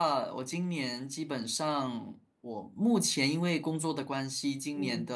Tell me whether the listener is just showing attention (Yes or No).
Yes